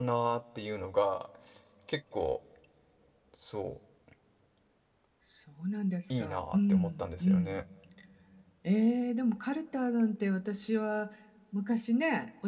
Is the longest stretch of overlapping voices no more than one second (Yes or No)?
No